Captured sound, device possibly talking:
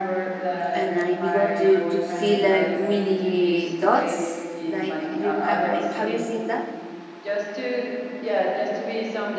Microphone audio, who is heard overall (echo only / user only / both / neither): both